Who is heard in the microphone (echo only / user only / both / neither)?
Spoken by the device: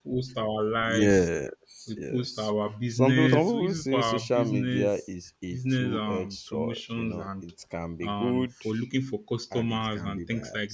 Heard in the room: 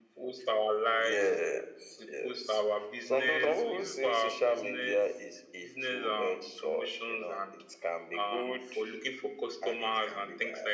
echo only